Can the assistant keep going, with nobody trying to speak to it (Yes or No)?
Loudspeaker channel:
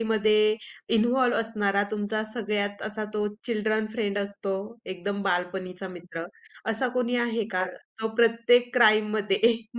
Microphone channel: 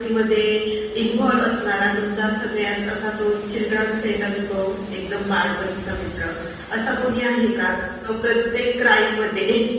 Yes